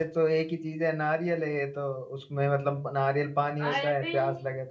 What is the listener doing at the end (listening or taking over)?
listening